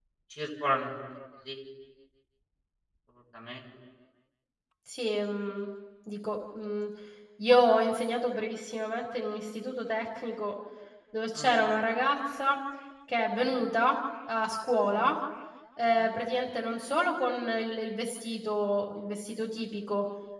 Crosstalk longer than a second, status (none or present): none